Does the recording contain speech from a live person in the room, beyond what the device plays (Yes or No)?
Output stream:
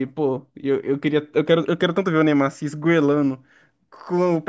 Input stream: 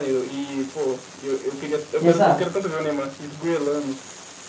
Yes